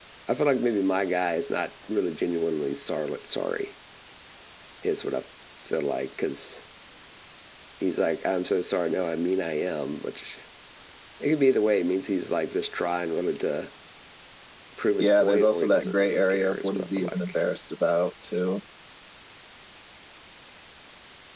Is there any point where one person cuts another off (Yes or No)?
Yes